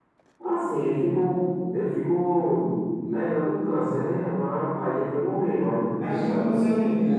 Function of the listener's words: taking over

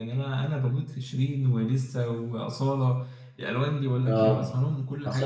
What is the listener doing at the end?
taking over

